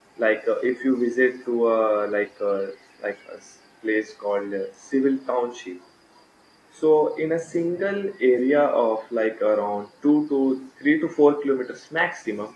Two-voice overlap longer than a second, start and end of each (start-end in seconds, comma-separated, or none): none